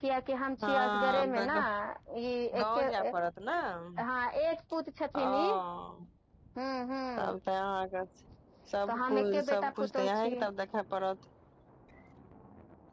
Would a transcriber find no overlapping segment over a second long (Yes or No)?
No